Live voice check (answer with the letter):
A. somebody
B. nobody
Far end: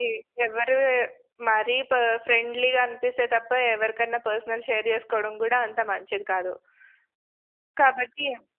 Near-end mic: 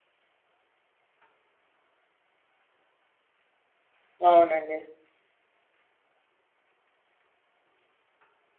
A